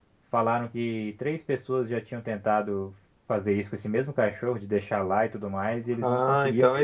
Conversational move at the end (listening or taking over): taking over